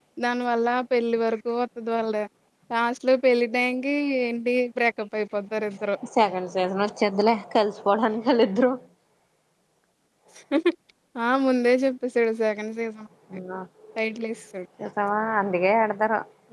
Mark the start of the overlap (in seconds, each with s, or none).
none